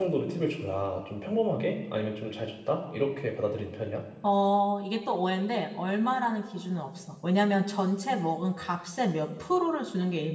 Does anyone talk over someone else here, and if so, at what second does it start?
none

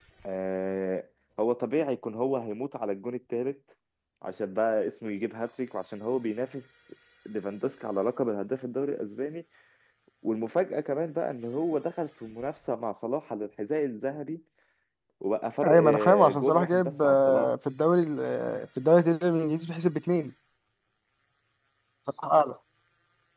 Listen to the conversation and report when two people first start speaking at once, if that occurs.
15.6 s

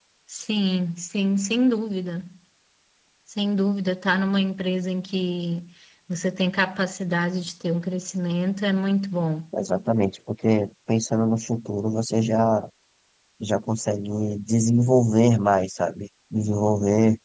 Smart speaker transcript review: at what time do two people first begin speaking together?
none

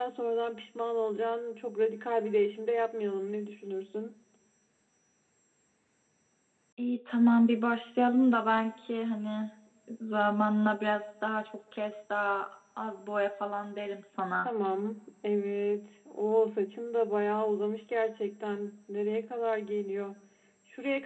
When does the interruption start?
none

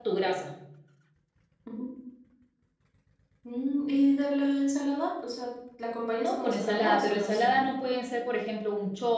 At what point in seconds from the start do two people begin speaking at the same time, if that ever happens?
6.2 s

